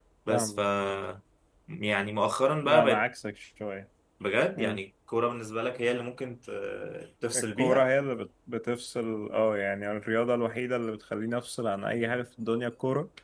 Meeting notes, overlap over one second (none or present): none